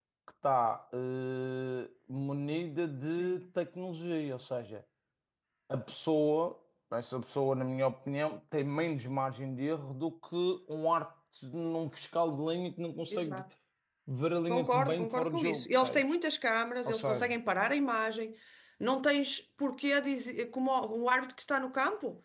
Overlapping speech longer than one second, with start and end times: 14.5-16.0

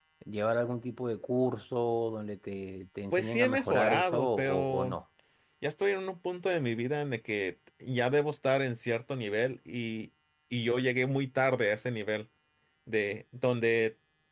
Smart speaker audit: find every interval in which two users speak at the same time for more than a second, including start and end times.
3.1-5.0

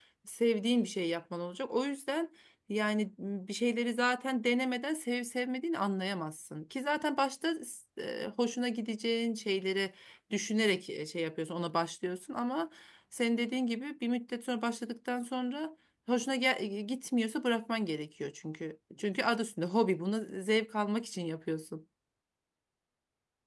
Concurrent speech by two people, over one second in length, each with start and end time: none

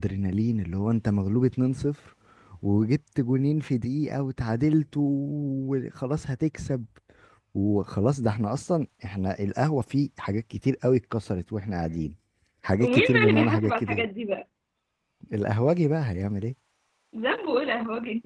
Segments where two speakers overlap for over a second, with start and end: 12.8-14.0

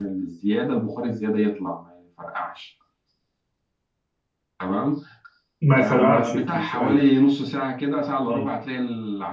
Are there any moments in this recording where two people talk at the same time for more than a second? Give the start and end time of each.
5.8-7.0

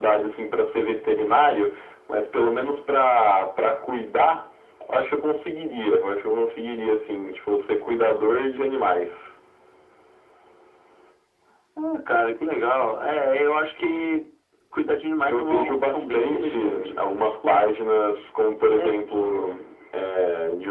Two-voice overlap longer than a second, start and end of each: 15.3-16.9

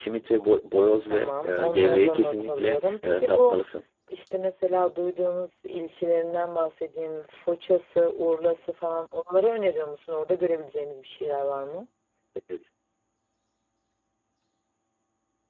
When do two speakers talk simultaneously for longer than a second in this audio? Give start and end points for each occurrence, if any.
1.1-3.6

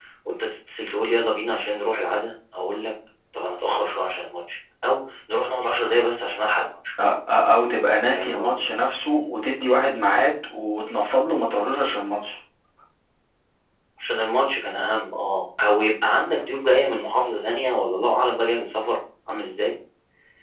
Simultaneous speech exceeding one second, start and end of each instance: none

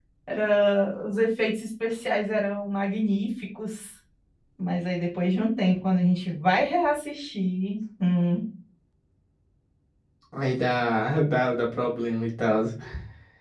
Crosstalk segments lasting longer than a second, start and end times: none

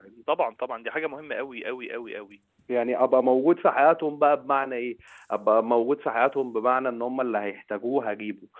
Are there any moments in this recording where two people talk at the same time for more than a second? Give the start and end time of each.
none

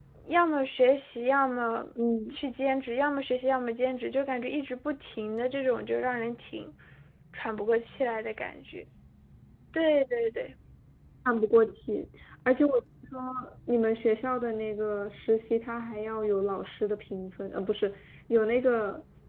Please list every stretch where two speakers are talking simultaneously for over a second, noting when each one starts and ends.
none

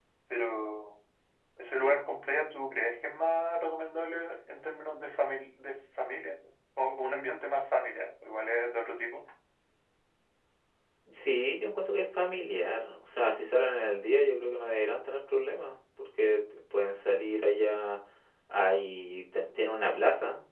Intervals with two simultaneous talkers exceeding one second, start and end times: none

